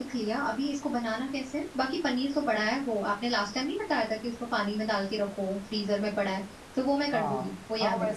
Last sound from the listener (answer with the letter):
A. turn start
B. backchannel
A